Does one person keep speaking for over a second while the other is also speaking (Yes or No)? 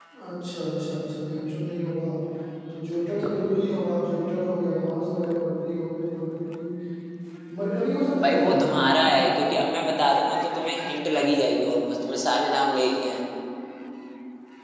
No